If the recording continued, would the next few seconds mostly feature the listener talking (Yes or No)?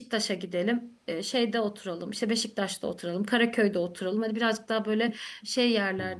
No